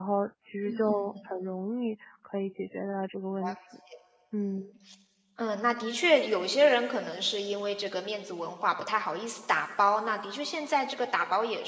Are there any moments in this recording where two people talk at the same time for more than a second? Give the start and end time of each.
none

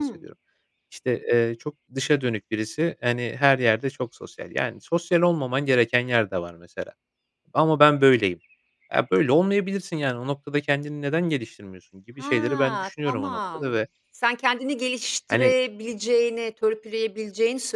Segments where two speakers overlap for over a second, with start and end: 12.2-13.7

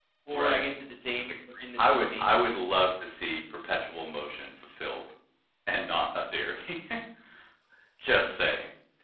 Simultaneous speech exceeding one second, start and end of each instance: none

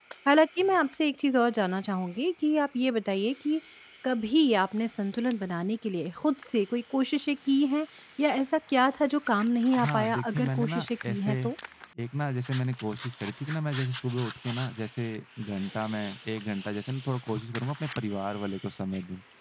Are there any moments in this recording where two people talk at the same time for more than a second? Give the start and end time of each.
9.8-11.3

